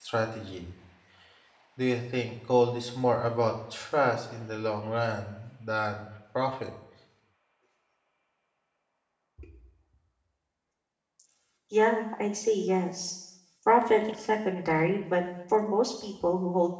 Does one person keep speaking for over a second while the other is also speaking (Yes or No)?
No